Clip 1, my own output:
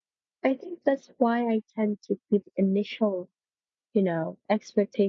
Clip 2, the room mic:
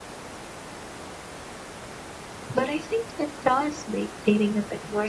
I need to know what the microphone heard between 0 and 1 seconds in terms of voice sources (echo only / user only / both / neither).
neither